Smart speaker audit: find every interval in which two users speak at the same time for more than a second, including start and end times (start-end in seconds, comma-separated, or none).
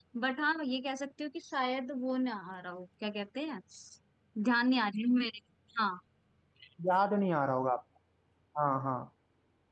none